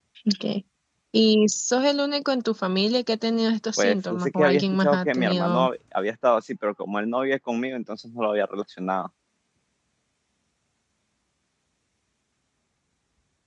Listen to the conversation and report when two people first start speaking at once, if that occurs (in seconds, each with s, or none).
3.8 s